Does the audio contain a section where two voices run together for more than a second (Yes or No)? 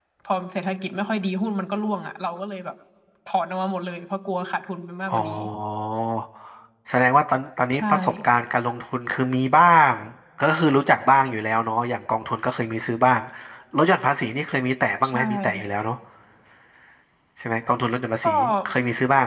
No